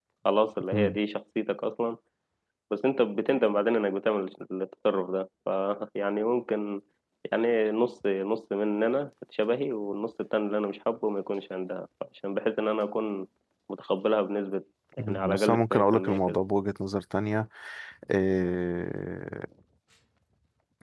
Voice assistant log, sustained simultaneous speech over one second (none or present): present